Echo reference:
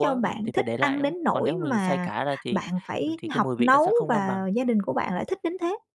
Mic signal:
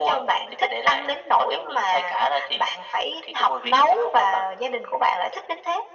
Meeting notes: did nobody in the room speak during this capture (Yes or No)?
Yes